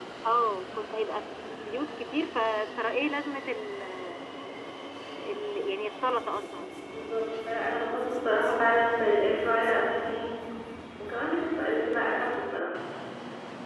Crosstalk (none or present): none